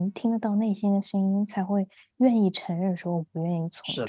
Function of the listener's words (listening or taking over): taking over